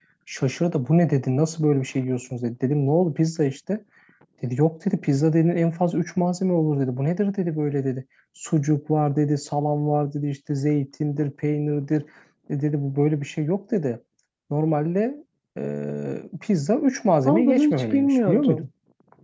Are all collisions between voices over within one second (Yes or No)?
No